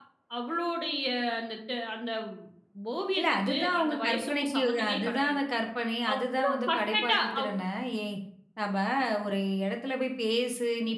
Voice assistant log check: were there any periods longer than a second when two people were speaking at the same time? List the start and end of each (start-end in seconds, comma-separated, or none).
3.2-5.4, 6.1-7.5